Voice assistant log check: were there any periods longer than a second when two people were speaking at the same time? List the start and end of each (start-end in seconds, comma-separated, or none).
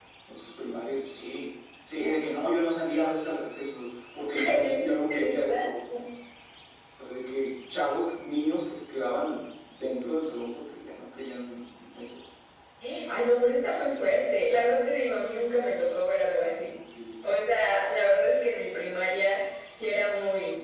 4.5-5.7